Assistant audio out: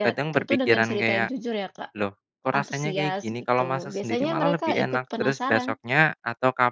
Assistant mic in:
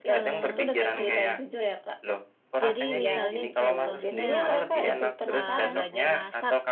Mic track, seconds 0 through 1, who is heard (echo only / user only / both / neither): both